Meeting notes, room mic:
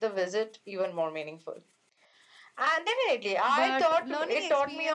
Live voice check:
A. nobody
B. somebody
B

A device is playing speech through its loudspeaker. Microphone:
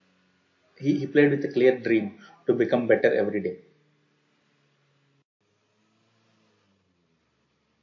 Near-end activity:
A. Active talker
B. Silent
A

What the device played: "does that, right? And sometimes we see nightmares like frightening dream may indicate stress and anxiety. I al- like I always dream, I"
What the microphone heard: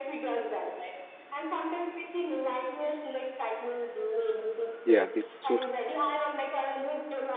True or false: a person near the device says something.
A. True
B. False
A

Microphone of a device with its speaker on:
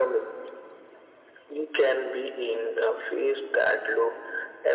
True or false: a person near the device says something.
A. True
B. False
B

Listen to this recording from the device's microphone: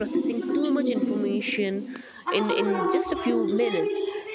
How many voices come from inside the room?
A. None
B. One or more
B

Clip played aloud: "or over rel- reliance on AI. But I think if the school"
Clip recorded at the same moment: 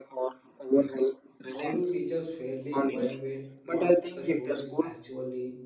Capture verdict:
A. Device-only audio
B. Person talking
B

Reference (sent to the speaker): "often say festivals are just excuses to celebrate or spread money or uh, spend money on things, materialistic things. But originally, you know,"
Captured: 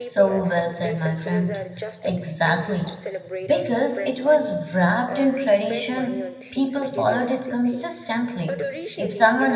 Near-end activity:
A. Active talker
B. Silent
A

